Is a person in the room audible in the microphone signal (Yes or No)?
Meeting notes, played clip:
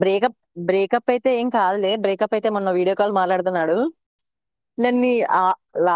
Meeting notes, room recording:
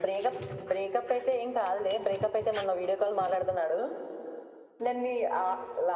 No